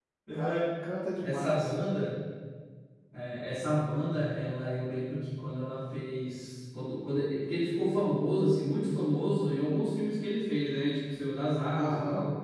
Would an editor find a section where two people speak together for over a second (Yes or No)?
No